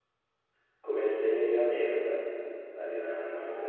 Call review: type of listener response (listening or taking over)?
taking over